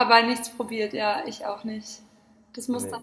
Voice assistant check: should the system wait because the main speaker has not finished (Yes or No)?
Yes